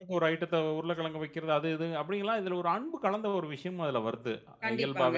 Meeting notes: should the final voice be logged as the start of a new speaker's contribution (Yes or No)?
Yes